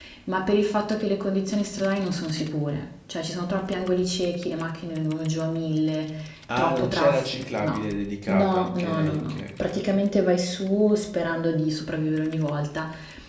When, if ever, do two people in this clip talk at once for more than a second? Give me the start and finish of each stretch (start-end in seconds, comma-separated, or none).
6.6-7.8, 8.3-9.8